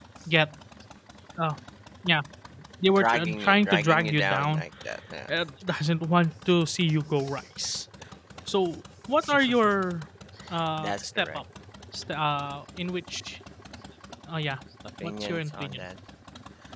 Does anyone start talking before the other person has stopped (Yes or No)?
Yes